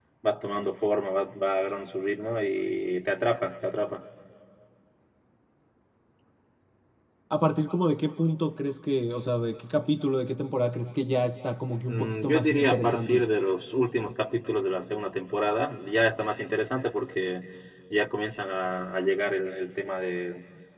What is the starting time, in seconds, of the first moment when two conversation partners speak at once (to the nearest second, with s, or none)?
12 s